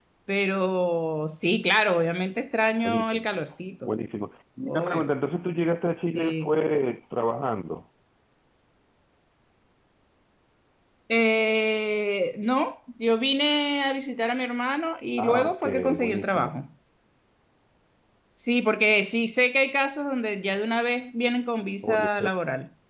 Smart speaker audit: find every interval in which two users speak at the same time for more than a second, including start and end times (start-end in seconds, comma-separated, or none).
15.2-16.5